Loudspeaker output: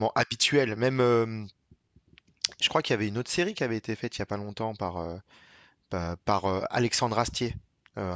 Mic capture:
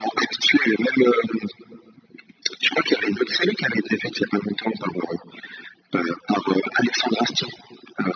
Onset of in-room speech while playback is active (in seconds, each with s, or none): none